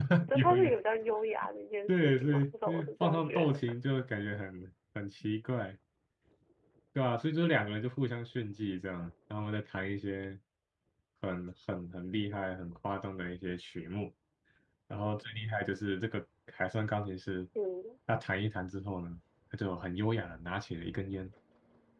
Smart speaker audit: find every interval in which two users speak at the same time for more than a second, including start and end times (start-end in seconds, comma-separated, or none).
1.9-3.6